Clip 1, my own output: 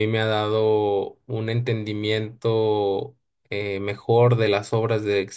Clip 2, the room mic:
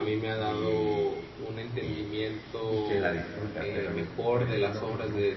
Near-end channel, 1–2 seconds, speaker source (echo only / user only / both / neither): both